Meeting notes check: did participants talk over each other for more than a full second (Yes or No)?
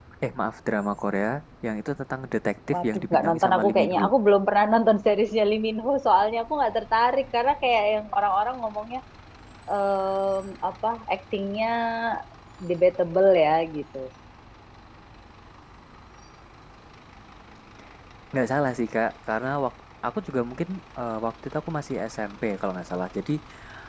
Yes